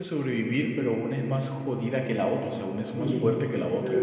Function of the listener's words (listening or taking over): taking over